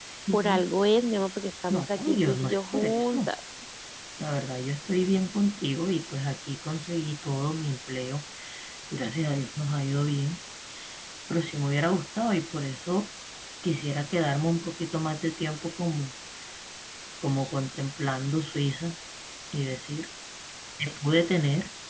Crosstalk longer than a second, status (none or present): present